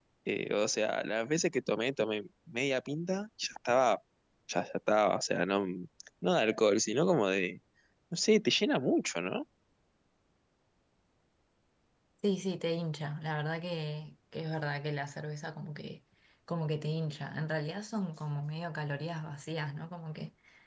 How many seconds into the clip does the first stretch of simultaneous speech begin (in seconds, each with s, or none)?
none